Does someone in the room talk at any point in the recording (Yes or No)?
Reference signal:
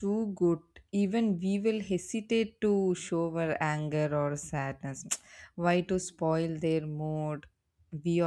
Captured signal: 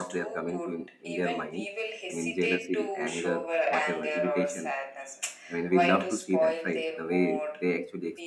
Yes